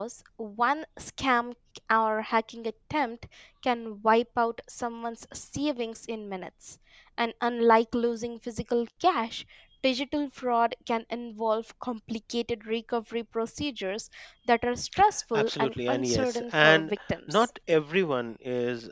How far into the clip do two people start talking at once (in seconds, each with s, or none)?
15.4 s